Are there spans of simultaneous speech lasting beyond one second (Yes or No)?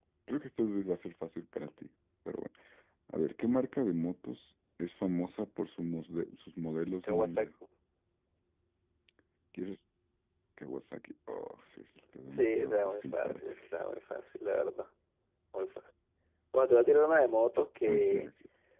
Yes